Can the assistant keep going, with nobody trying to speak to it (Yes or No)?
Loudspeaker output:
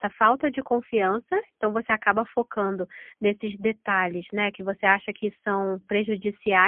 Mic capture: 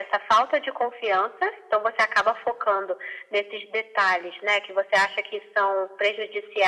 Yes